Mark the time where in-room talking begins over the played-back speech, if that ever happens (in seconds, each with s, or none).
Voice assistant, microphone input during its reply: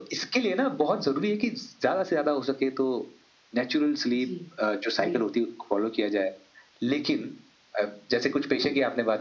4.1 s